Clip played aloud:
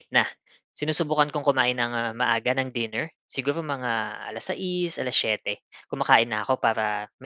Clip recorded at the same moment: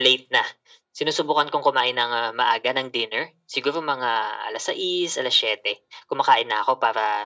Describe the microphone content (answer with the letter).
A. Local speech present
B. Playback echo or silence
B